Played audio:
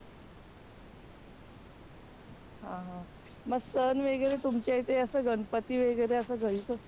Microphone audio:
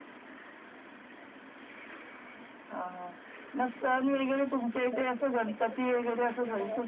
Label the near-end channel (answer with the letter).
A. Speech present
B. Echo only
A